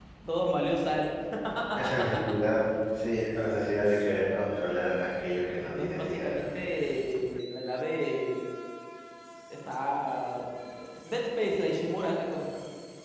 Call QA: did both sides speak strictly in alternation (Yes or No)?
No